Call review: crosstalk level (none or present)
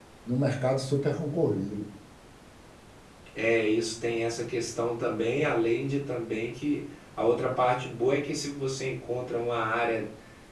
none